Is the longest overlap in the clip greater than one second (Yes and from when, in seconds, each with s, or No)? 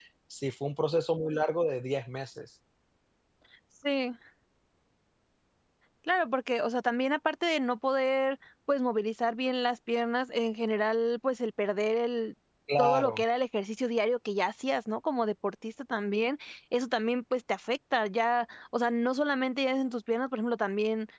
No